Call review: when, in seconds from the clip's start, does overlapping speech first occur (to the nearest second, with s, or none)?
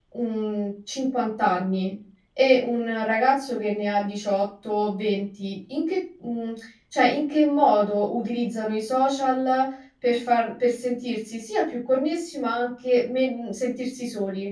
none